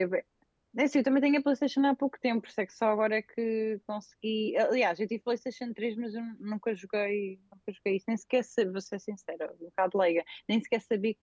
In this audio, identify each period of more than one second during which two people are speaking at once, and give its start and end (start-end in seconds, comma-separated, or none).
none